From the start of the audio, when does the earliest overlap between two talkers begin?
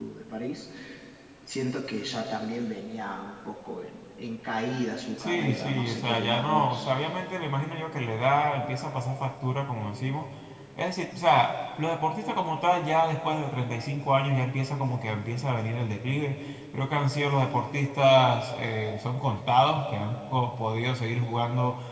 5.2 s

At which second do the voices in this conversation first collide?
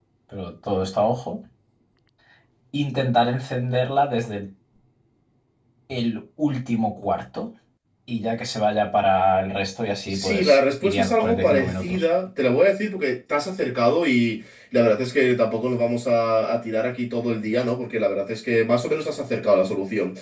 10.1 s

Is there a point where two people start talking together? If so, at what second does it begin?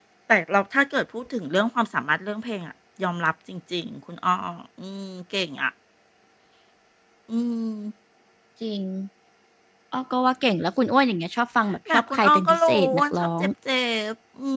11.9 s

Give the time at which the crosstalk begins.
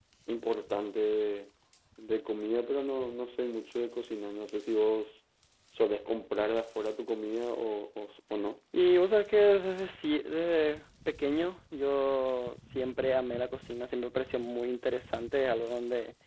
none

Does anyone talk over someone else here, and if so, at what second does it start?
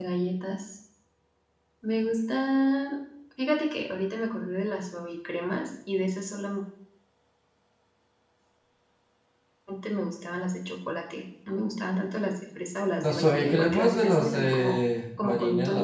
13.0 s

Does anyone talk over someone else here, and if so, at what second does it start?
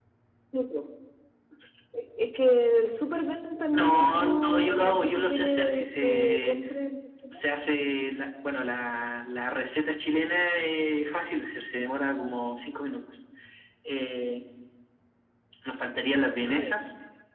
3.7 s

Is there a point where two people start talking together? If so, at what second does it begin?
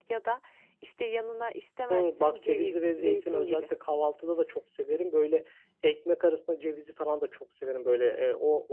1.9 s

